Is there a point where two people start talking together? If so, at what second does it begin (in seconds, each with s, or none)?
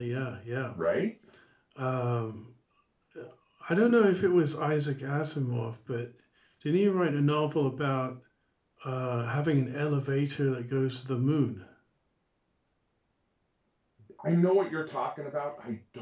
none